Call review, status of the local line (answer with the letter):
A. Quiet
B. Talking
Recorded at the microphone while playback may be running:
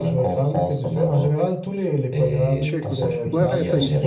B